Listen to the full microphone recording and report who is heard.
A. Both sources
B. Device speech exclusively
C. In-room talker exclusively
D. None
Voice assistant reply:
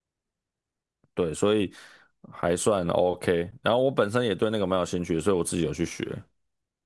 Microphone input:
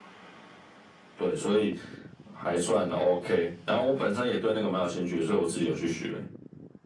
B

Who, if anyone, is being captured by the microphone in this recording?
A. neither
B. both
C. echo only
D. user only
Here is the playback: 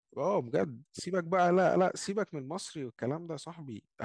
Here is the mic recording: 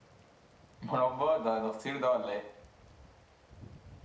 D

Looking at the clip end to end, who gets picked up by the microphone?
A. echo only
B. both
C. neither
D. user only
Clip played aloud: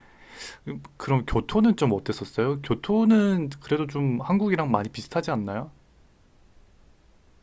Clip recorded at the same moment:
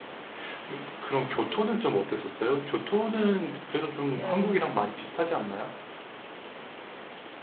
B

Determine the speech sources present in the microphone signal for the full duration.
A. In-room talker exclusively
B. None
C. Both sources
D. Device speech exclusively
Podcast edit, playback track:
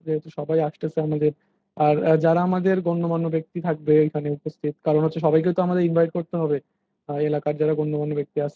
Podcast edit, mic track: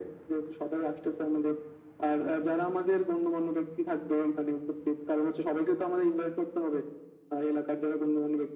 D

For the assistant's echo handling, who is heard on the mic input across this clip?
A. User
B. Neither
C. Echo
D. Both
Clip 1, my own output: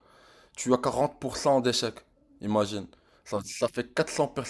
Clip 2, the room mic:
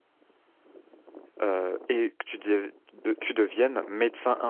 A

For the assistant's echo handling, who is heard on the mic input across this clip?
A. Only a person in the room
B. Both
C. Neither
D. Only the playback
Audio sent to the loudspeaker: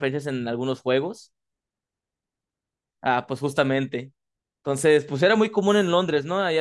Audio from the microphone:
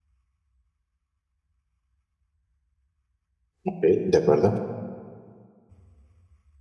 A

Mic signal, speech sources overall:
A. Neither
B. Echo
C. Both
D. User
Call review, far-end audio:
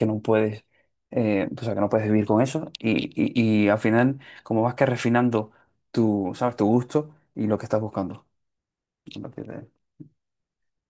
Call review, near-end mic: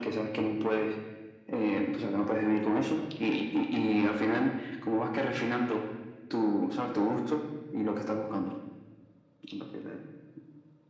B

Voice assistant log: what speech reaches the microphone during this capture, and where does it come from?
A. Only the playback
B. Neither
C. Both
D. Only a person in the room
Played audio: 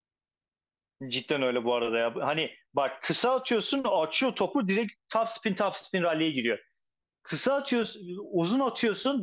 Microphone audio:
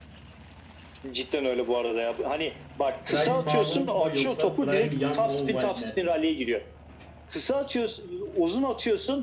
C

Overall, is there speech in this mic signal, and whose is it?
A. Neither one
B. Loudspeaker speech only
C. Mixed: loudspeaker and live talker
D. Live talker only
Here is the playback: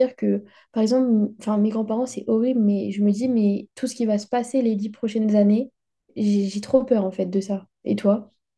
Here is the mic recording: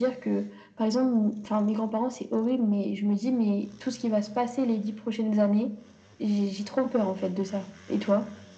B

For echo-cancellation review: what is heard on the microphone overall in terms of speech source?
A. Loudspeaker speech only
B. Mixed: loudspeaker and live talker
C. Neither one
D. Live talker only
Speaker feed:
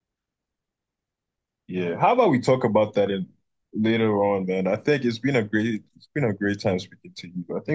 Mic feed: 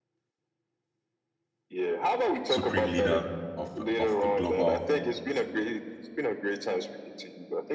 B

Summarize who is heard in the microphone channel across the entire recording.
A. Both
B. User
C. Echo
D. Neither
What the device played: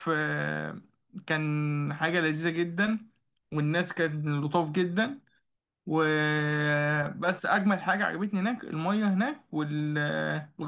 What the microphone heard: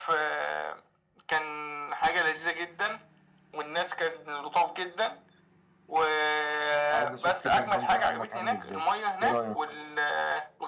A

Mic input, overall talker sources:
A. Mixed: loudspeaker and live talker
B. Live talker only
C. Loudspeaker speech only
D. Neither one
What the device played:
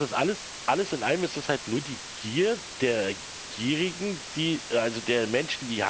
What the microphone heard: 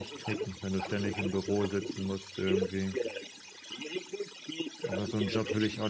A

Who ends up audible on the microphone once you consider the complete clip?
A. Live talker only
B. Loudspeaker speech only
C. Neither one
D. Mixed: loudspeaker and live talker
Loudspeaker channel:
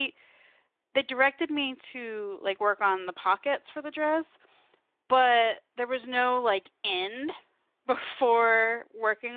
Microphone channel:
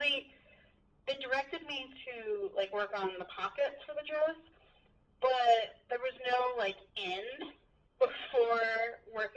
B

